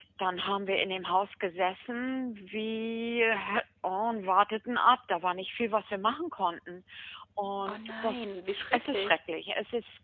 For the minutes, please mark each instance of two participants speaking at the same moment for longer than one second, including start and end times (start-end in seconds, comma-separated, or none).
none